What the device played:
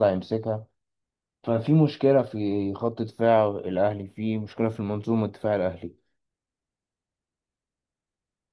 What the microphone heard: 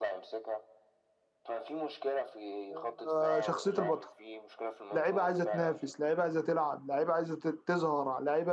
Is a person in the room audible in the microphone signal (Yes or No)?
Yes